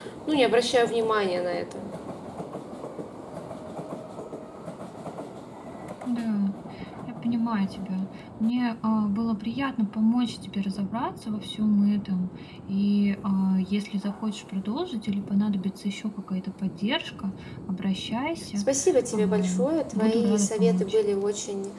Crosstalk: present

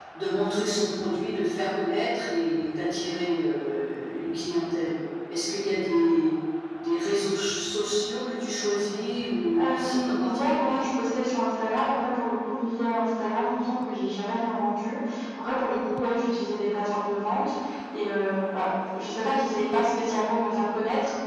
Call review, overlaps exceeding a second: present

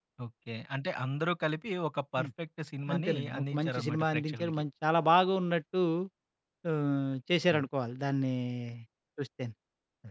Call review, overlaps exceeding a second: present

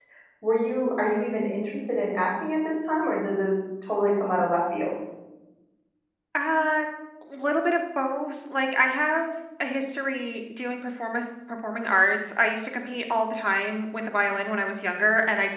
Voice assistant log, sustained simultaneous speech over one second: none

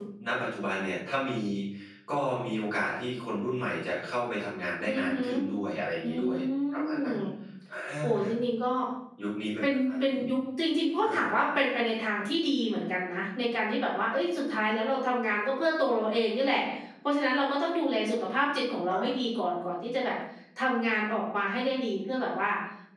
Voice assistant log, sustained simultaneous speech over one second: none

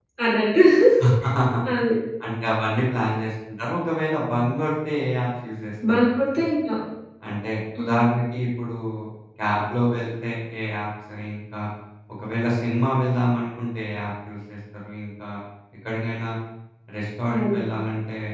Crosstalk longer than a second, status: none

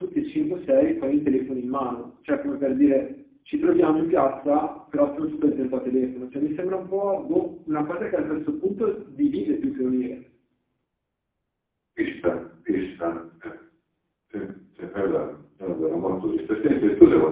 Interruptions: none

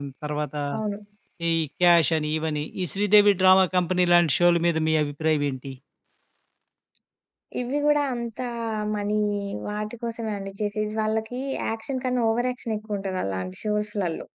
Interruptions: none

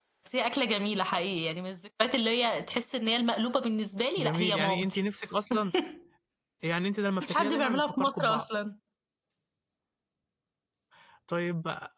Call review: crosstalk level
present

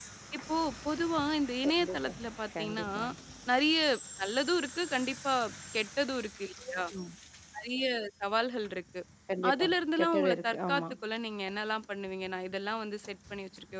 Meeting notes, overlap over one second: present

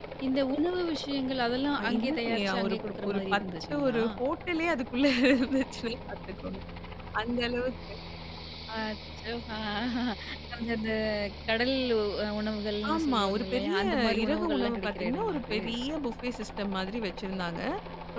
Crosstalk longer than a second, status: present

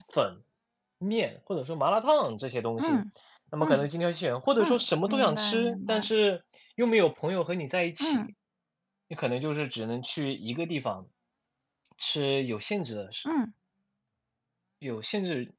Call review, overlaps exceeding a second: present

